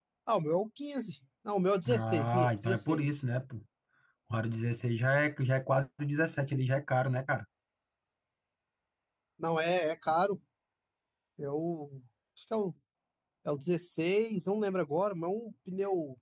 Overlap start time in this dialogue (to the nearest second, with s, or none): 2 s